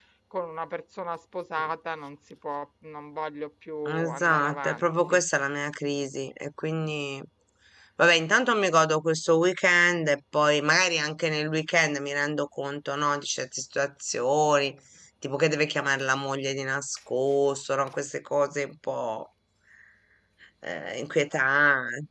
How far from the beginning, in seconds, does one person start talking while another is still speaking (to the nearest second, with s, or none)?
4 s